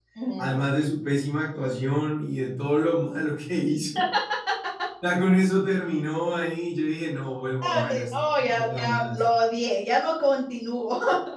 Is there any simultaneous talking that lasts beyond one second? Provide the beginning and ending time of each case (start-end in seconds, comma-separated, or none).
7.6-9.2